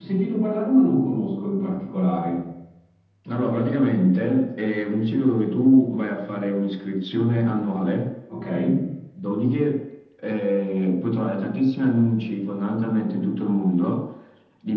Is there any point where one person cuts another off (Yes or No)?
No